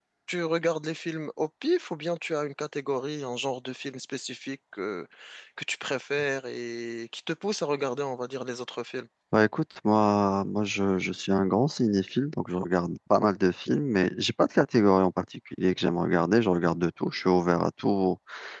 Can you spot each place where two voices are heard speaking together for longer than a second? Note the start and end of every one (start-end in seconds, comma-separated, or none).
none